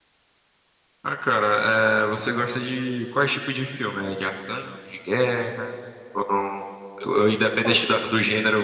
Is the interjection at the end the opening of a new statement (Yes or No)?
No